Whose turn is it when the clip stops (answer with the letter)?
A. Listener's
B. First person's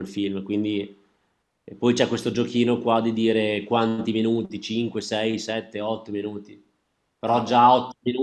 B